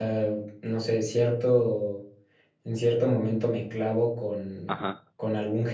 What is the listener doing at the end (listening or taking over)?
listening